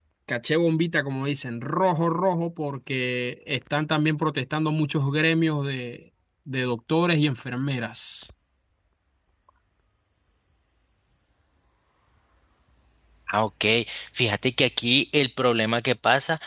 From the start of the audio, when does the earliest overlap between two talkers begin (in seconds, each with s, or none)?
none